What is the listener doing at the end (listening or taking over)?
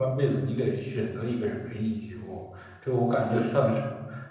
listening